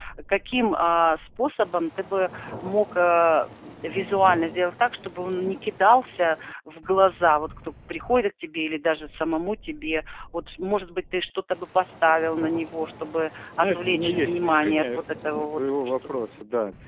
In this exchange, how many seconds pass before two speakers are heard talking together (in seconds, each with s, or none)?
13.6 s